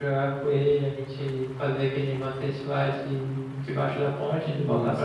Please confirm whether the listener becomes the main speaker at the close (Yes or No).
Yes